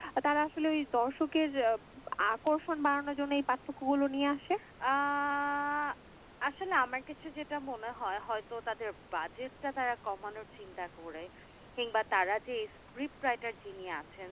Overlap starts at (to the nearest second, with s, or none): none